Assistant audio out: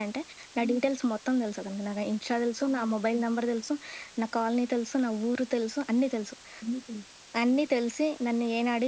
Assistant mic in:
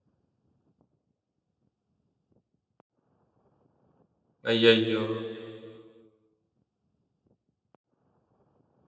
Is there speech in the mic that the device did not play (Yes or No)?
Yes